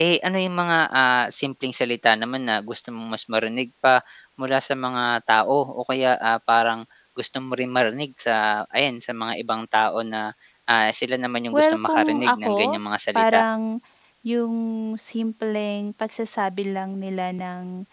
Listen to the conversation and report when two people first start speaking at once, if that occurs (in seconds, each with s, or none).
11.5 s